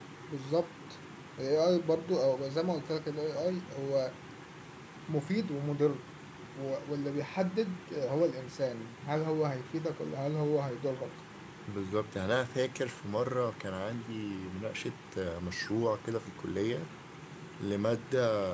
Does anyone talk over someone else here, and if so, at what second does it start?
none

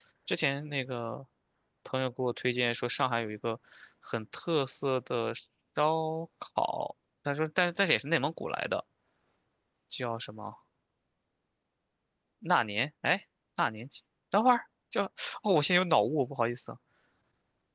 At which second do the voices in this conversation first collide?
none

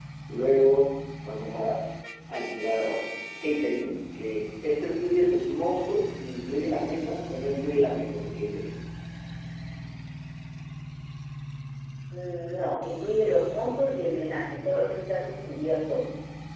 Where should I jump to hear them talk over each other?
none

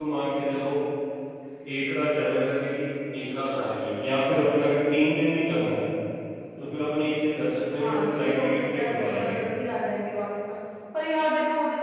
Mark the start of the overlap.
7.8 s

